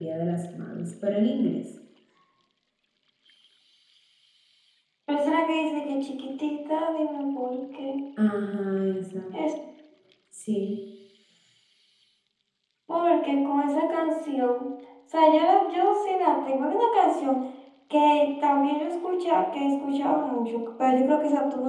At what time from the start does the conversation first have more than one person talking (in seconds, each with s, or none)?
none